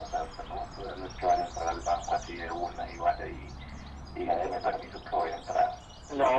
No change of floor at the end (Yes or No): No